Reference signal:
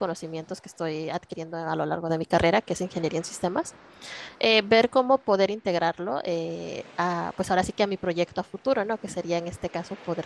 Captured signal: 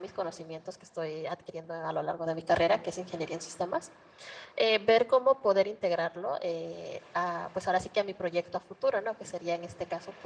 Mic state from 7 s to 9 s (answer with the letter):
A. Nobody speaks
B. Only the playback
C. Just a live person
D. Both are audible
B